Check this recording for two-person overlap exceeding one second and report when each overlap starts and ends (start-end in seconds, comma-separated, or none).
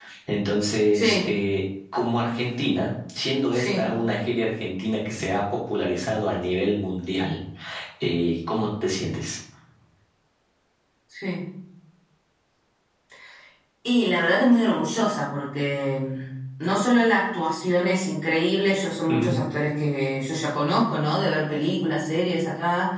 none